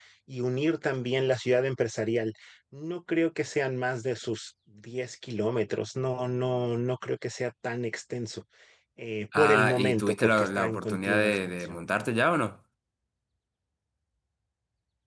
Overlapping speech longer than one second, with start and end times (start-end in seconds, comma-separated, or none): 9.4-11.8